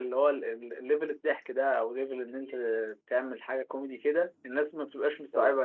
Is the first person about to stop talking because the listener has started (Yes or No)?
No